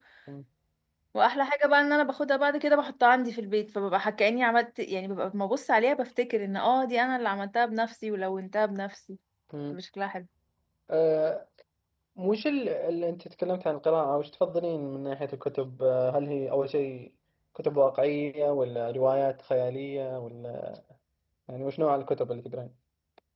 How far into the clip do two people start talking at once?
none

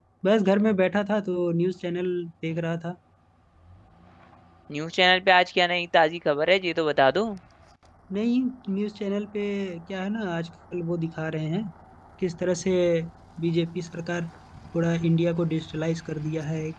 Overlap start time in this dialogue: none

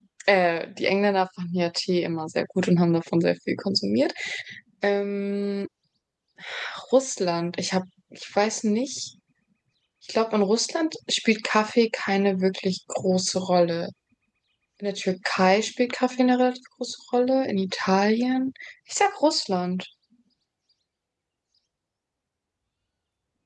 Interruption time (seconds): none

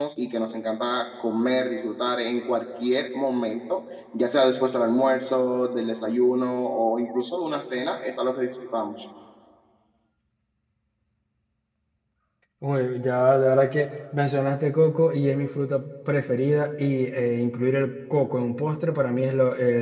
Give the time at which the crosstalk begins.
none

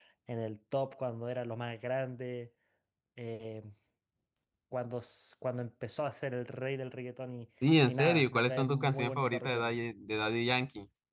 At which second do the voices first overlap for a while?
7.9 s

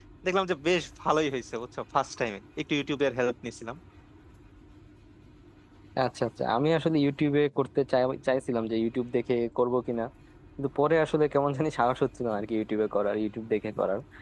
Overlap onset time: none

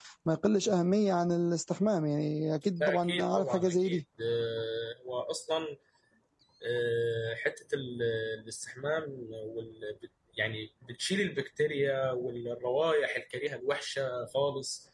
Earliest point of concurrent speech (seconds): 2.8 s

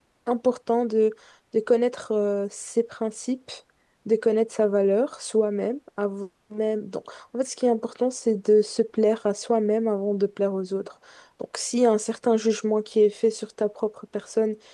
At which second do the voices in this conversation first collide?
none

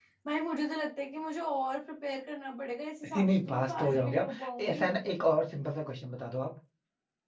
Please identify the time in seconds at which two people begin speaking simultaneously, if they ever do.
3.0 s

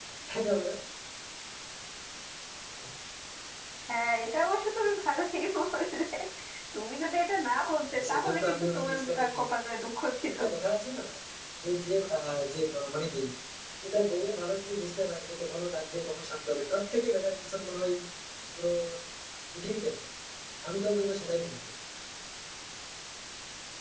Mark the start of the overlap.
7.8 s

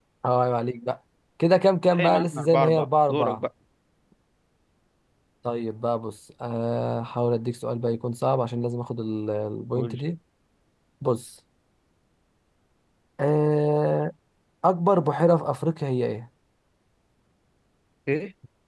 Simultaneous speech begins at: 1.9 s

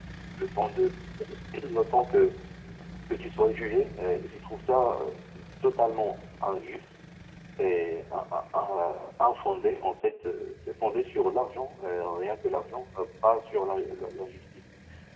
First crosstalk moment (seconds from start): none

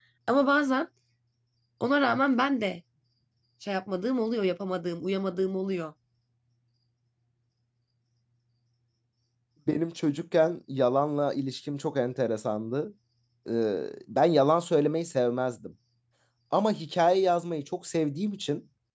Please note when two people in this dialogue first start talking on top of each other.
none

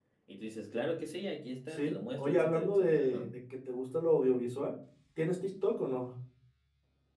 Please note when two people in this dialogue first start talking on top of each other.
1.7 s

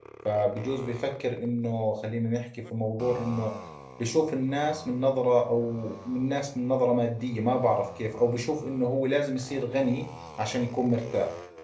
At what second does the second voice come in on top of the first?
none

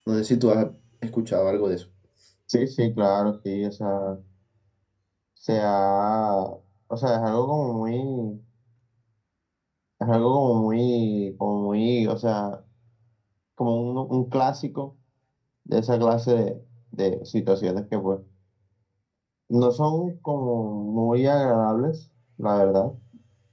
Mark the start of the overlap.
none

